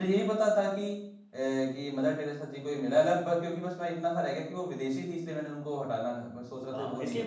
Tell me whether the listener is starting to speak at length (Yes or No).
Yes